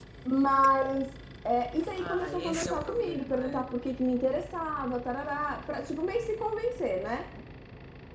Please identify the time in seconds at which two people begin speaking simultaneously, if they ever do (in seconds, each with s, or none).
1.9 s